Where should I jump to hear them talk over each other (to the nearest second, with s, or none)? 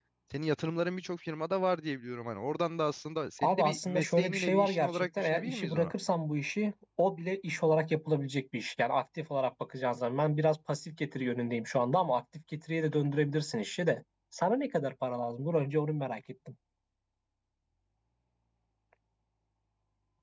3 s